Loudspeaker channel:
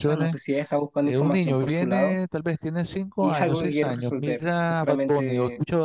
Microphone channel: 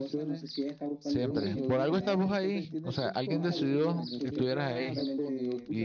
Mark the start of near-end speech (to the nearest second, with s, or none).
1 s